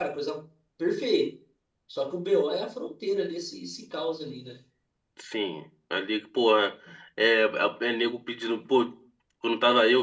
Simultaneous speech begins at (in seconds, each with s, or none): none